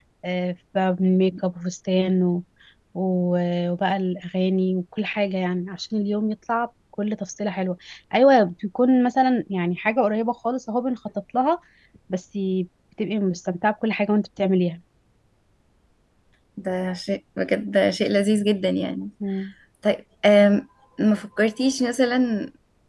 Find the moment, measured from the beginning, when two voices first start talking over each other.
none

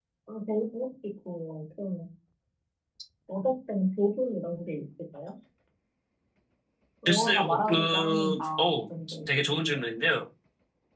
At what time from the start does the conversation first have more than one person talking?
7.0 s

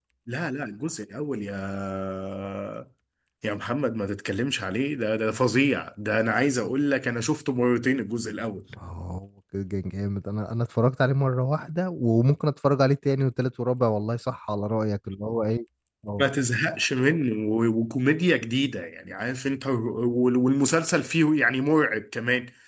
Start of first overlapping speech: none

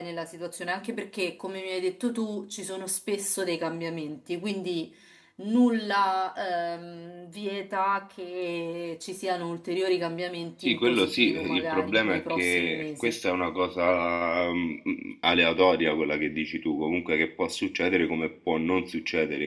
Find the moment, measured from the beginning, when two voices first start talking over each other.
10.6 s

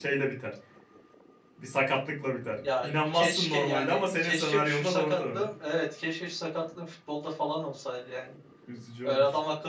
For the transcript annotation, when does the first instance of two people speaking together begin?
2.8 s

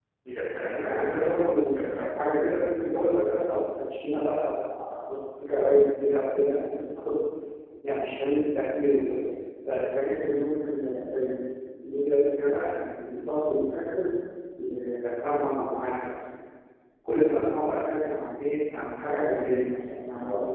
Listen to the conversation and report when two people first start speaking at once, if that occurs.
0.6 s

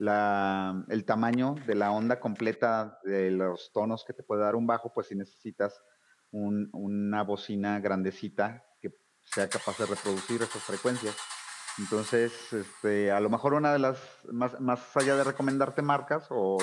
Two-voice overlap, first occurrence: none

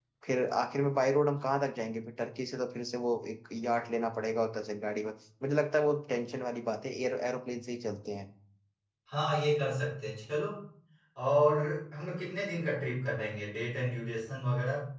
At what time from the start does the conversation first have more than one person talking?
none

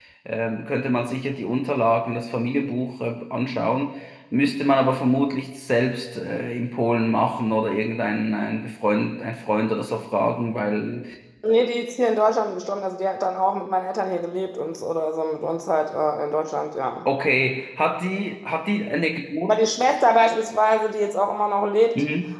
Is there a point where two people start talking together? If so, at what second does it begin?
none

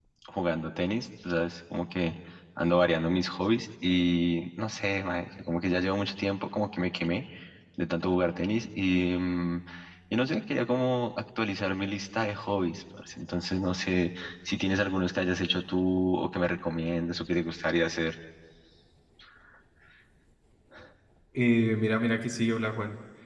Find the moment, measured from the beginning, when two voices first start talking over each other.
none

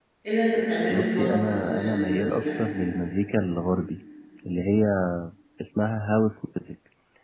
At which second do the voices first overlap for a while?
0.9 s

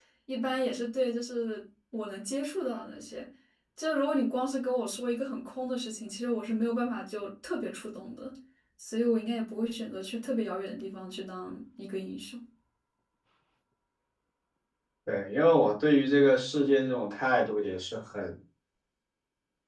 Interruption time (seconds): none

